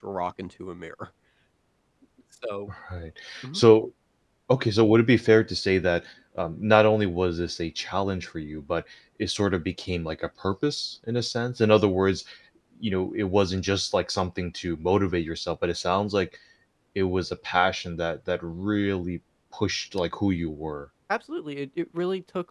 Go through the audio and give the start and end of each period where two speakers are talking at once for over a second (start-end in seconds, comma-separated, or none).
none